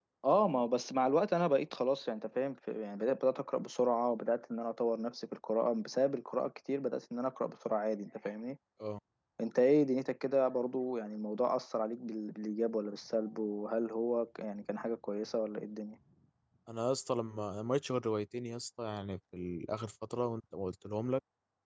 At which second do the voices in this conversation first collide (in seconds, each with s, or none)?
none